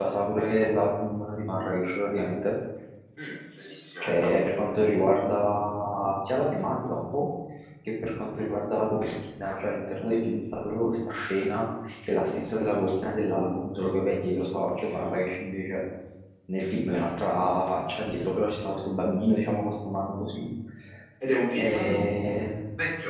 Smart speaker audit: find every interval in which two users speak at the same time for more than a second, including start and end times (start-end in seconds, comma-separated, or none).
none